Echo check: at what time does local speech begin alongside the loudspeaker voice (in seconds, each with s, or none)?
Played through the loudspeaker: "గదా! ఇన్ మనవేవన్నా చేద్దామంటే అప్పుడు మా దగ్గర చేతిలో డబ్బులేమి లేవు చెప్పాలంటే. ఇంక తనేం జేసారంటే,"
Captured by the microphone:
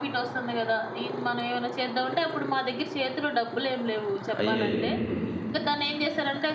4.4 s